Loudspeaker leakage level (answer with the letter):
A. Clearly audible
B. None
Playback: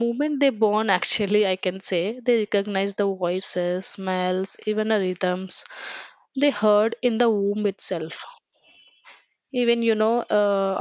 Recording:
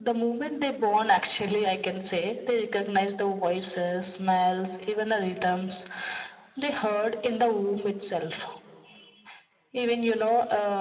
A